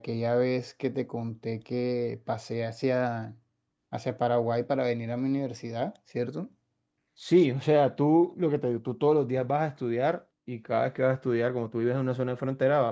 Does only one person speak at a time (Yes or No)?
Yes